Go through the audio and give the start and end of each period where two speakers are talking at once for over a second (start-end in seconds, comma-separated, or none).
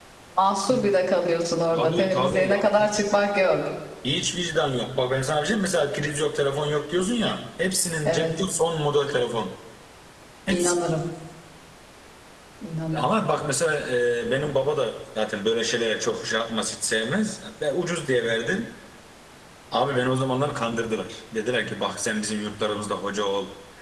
1.7-3.0